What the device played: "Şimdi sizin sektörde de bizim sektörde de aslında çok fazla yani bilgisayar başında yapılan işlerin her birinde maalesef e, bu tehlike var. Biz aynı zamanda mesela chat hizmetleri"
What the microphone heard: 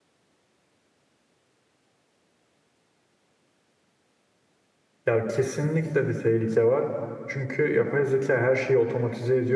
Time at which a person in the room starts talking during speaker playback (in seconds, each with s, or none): 5.0 s